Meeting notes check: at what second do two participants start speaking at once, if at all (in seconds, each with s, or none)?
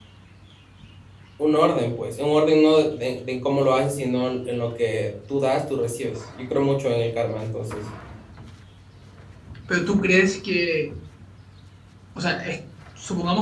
none